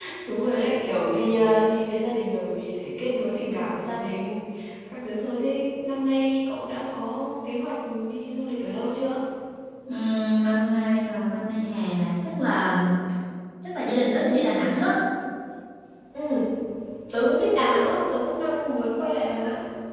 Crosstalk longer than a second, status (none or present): none